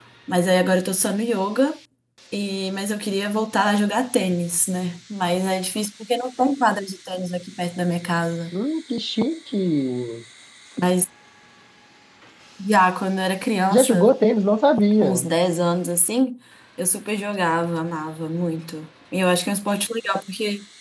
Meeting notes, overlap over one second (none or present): none